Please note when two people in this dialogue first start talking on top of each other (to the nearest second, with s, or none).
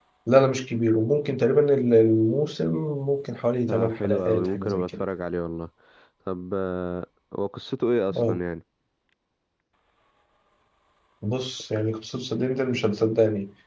4 s